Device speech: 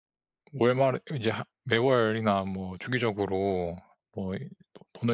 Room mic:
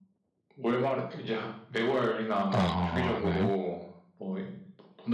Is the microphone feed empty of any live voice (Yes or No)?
No